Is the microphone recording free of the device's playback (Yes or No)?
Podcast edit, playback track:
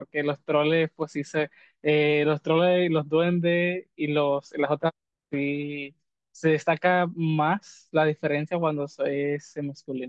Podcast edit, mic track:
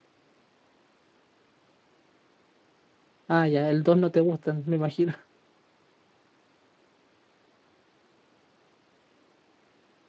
Yes